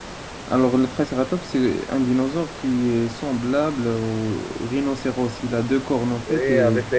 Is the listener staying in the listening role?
No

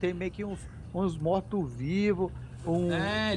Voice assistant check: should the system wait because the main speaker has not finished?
No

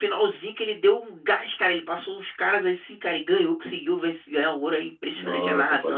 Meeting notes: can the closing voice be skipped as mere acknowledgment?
No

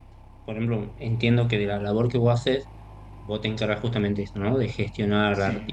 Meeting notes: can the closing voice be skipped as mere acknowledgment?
Yes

